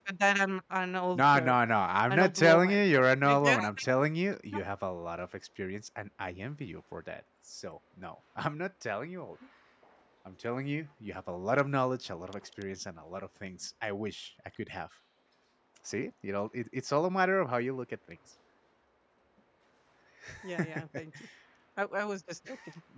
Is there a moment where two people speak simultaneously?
Yes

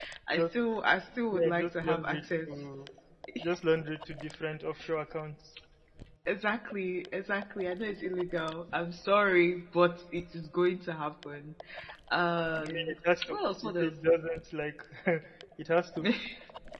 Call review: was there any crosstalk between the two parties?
Yes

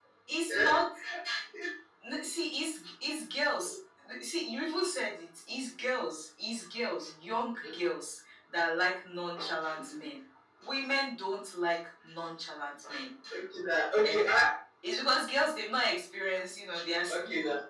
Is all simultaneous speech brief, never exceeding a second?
Yes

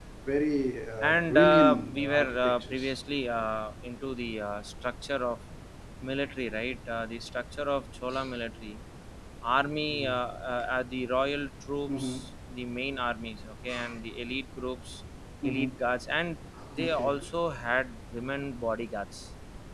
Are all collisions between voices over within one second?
No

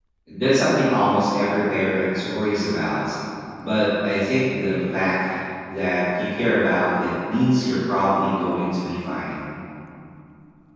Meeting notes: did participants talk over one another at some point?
No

